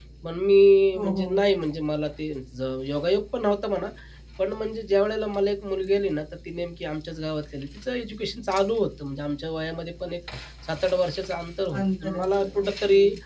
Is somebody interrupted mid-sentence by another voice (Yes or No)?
Yes